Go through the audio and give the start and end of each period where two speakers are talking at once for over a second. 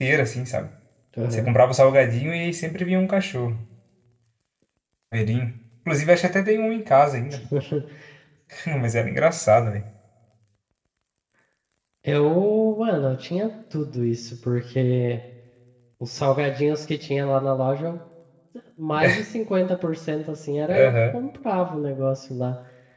none

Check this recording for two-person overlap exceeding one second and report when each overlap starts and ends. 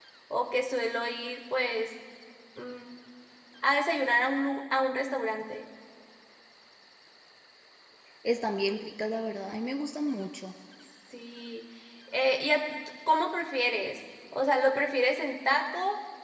none

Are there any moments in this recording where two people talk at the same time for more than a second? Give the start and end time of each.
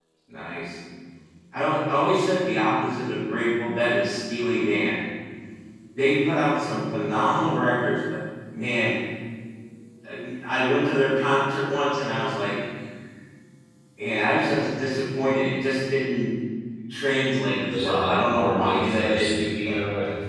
17.7-19.8

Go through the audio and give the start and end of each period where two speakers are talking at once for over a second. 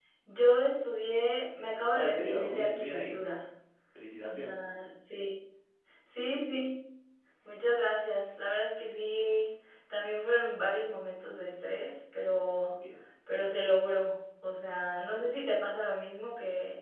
1.9-3.2

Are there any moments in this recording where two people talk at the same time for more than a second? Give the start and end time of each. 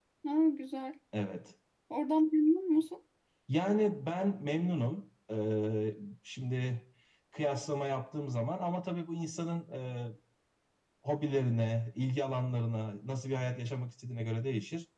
none

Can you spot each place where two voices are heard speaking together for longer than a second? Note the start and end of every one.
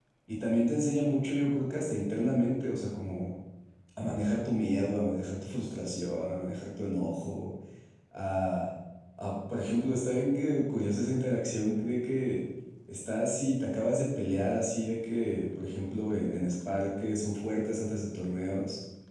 none

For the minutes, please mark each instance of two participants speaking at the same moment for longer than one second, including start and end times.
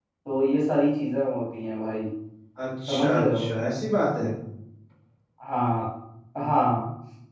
none

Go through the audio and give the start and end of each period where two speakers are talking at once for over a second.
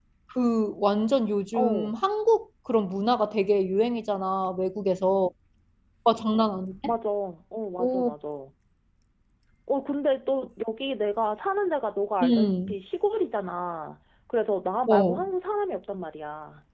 none

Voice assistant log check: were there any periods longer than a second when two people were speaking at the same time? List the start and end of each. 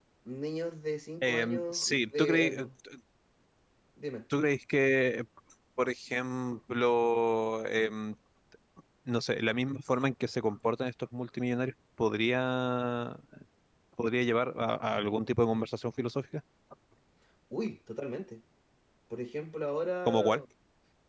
1.2-2.6

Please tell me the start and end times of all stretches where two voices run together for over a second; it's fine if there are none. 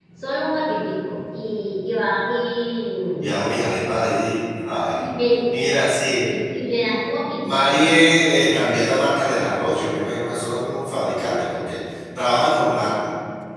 none

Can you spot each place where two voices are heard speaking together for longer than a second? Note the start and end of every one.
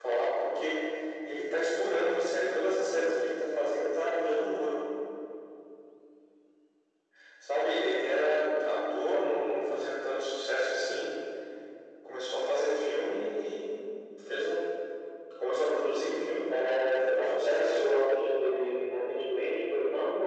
16.5-17.8

